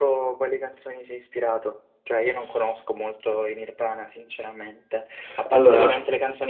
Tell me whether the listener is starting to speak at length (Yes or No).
No